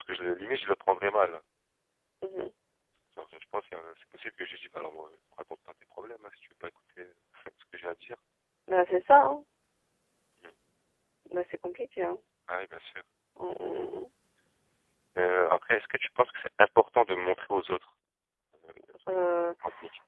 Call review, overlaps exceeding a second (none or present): none